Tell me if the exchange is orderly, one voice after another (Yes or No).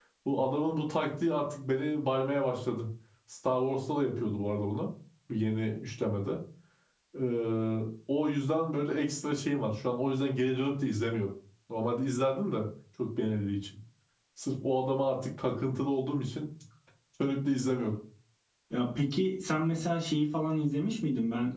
Yes